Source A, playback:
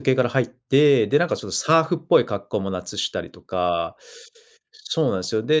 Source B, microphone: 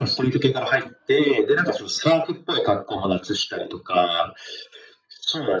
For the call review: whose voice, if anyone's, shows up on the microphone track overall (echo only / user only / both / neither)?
echo only